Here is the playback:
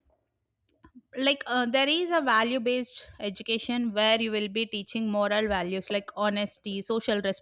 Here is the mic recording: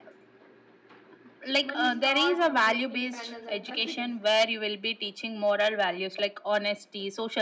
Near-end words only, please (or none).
money start to influence independence and confidence